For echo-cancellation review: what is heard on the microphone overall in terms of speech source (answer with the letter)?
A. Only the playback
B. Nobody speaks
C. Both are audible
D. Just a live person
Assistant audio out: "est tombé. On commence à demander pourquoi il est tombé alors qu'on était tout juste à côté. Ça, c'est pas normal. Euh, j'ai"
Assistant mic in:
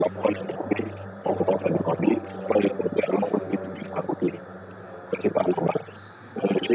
C